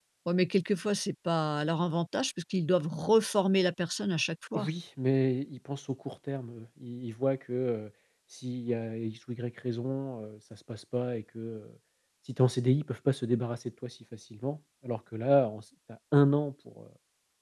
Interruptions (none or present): none